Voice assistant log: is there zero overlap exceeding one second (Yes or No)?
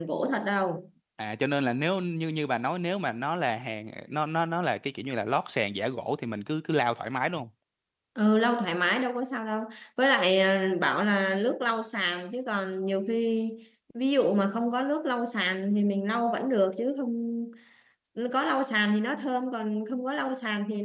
Yes